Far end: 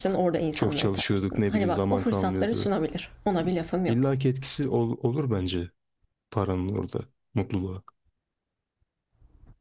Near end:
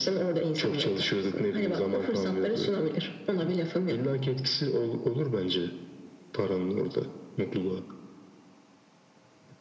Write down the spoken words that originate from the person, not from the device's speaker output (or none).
none